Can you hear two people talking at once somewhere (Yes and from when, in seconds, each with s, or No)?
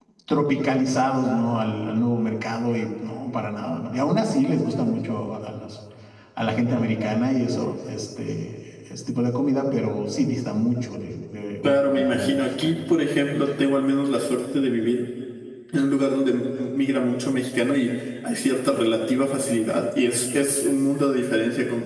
Yes, from 11.6 s